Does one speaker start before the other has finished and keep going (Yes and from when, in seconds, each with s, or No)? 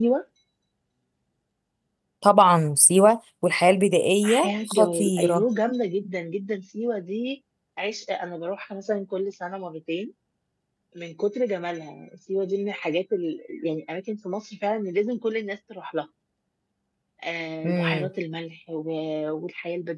Yes, from 4.2 s